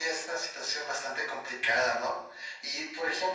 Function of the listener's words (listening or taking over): listening